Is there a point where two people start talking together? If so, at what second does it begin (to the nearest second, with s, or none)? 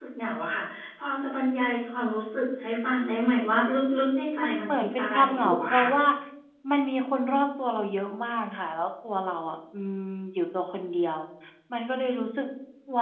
4 s